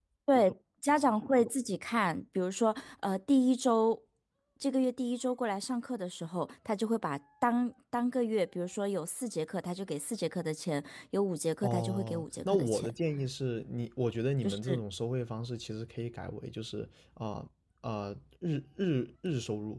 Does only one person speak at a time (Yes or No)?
No